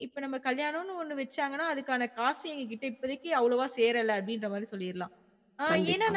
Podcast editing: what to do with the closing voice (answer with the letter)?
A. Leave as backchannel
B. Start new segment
A